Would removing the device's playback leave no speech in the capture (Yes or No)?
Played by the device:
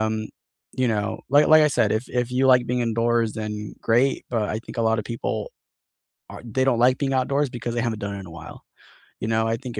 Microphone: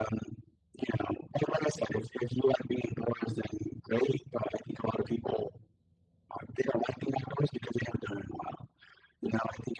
Yes